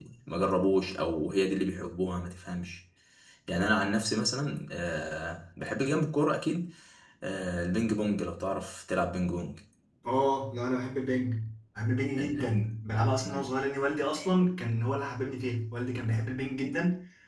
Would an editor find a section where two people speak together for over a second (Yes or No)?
No